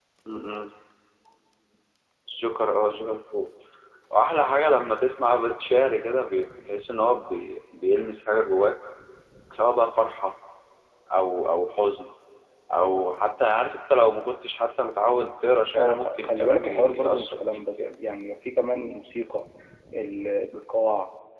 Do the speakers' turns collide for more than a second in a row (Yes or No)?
Yes